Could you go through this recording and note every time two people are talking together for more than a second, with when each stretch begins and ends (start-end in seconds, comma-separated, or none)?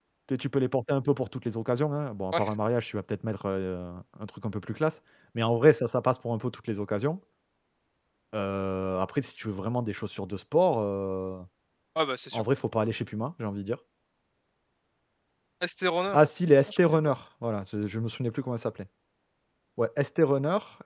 none